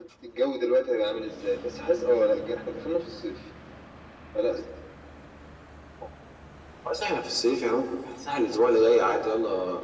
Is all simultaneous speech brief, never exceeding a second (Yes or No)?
Yes